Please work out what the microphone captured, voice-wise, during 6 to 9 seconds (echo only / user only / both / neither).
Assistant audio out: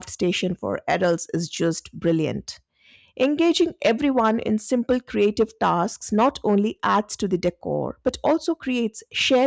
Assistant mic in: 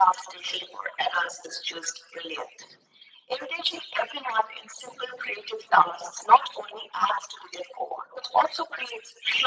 echo only